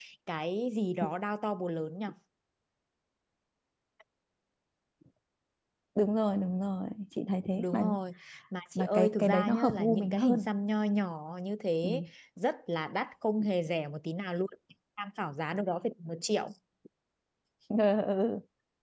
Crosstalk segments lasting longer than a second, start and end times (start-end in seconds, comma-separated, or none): 8.8-10.5